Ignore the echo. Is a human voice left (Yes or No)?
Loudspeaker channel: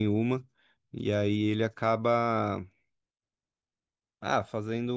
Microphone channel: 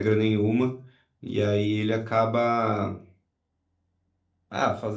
No